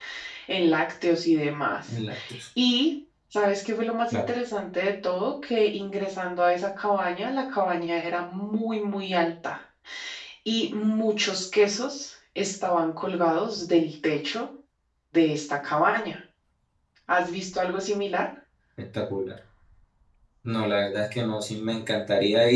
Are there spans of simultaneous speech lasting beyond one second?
No

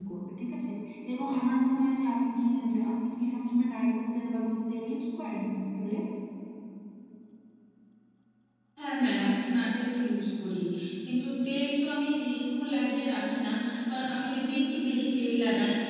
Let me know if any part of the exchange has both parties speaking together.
No

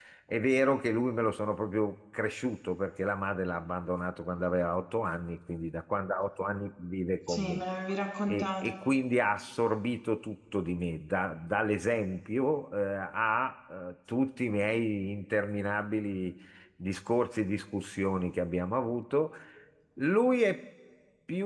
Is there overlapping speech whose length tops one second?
No

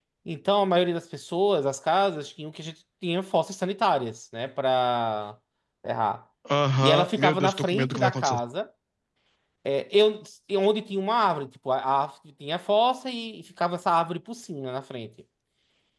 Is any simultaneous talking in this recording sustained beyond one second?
Yes, from 6.8 s

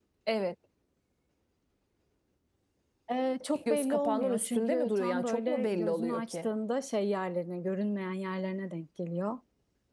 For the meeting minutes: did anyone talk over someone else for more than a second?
Yes, from 3.7 s

